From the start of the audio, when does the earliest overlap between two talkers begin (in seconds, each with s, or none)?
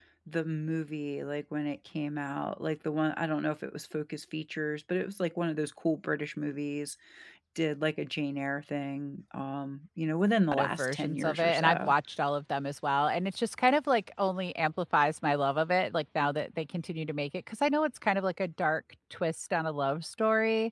10.5 s